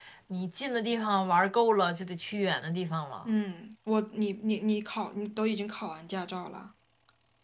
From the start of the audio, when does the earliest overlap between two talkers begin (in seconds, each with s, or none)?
none